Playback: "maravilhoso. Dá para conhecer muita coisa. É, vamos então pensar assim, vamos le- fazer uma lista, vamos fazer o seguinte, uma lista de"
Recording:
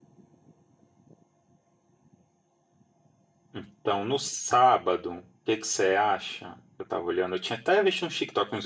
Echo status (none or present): none